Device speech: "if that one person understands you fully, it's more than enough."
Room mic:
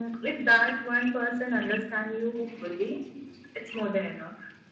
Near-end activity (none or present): none